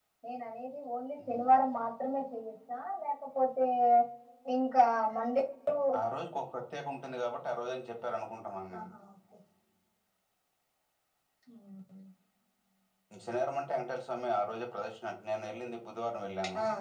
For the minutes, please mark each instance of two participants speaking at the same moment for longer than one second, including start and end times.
none

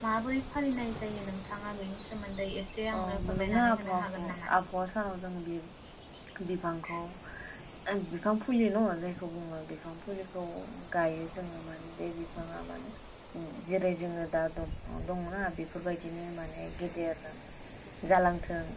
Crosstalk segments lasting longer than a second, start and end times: 2.9-4.5

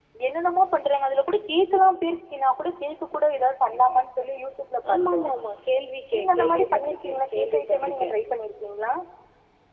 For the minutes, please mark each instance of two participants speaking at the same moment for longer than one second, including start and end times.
6.1-8.0

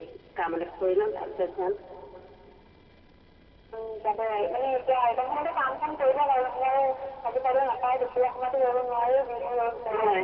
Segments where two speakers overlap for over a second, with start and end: none

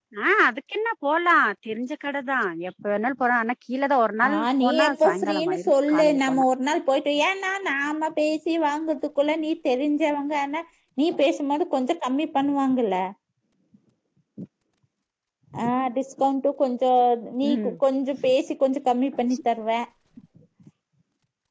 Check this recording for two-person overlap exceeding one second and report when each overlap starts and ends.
4.3-6.4

